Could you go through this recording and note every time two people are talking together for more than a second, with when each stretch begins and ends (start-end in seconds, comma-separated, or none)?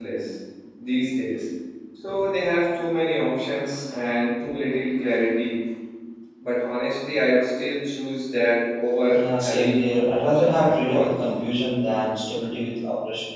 9.1-11.1